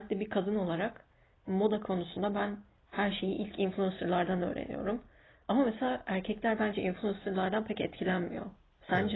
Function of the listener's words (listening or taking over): taking over